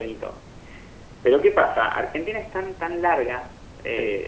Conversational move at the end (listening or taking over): listening